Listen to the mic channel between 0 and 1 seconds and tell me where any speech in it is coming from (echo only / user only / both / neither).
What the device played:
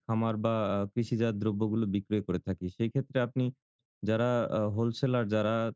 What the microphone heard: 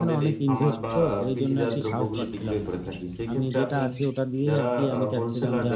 both